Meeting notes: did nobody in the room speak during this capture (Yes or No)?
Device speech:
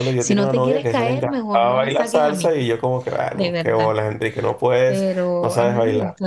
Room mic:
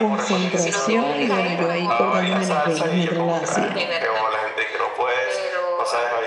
No